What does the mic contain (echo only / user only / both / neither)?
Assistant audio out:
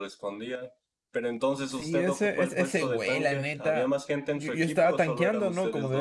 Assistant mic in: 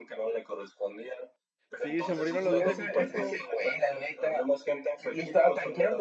both